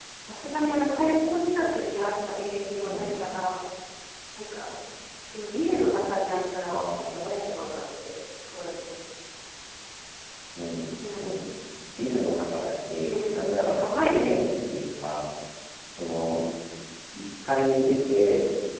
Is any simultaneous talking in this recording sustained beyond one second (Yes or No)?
Yes